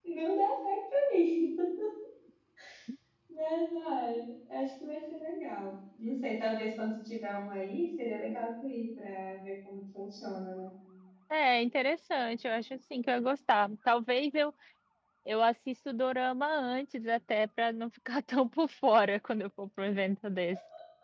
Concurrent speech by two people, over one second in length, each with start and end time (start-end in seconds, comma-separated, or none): none